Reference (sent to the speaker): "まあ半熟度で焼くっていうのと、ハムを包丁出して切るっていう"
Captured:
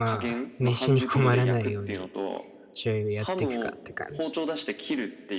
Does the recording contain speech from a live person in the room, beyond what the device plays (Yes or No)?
Yes